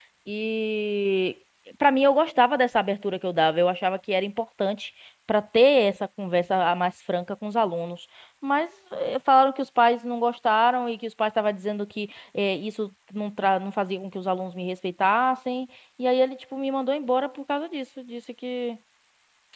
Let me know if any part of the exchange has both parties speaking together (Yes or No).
No